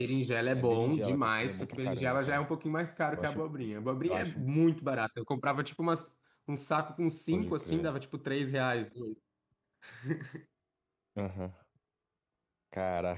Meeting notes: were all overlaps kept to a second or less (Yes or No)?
No